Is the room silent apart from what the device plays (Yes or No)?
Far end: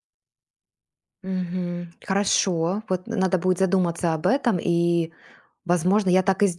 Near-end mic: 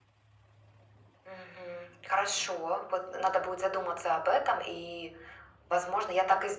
Yes